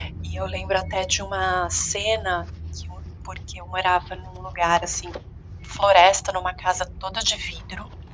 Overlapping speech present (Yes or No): No